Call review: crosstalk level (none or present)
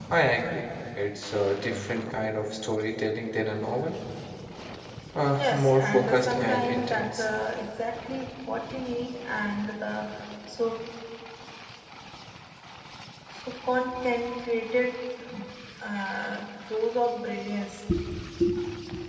present